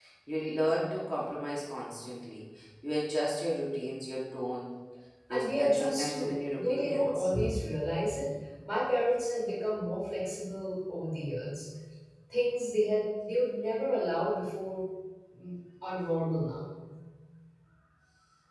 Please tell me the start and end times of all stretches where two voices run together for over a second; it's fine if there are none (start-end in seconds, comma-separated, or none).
5.3-7.3